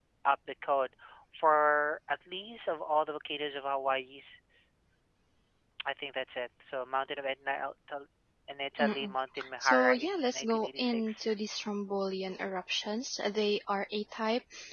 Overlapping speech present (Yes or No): Yes